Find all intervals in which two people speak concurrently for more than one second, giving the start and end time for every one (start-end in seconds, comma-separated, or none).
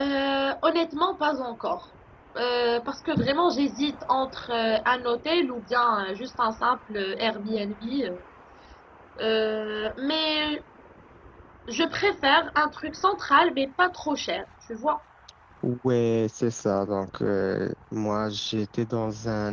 none